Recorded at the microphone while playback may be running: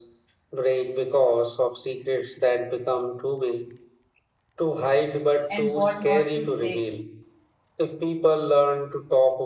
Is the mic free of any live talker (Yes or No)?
No